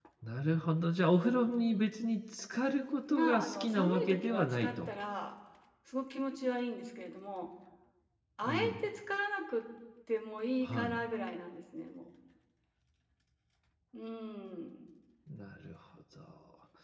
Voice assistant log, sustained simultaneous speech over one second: present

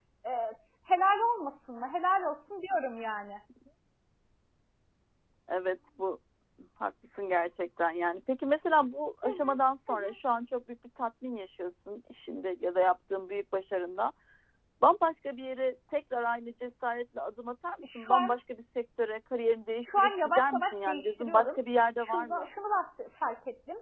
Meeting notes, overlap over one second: present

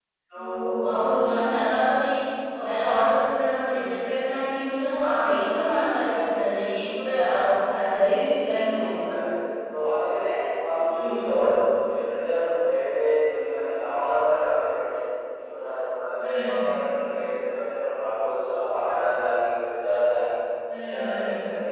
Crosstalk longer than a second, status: none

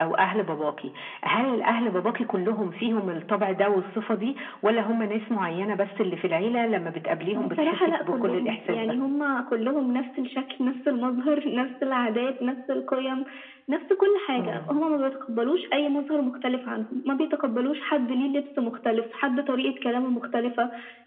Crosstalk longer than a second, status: present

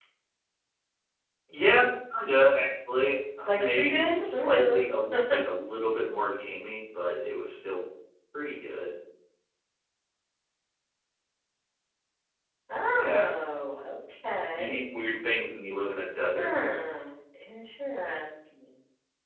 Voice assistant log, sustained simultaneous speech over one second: present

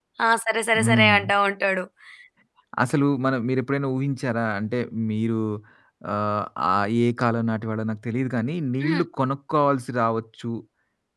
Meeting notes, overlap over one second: none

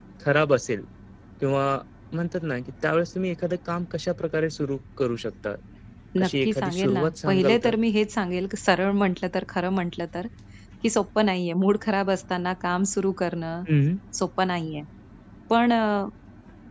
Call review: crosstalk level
present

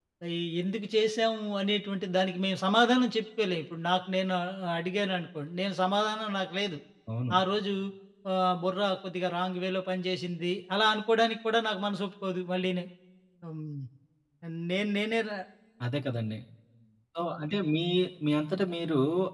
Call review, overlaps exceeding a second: none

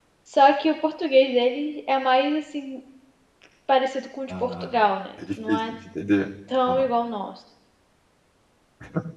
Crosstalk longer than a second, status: none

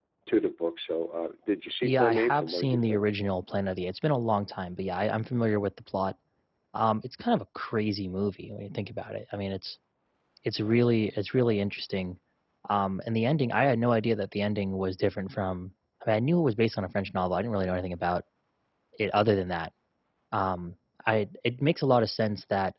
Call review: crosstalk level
present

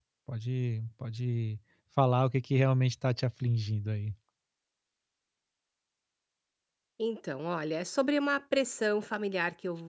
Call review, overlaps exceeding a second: none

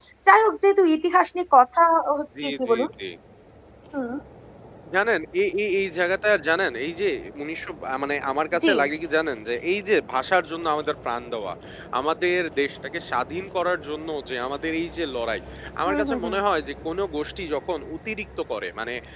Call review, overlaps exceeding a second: none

